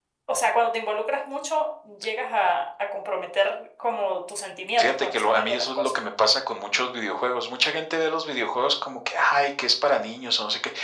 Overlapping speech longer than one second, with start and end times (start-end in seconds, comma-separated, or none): 4.8-6.0